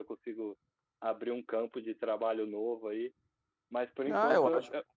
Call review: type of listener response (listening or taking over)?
taking over